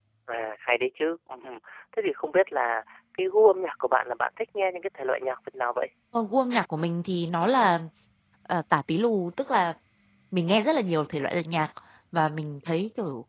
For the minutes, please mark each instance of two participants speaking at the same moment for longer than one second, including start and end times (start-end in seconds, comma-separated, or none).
none